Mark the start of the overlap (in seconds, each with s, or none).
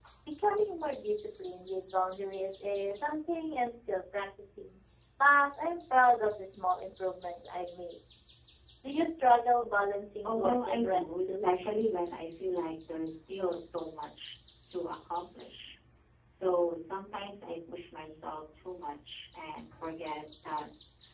10.2 s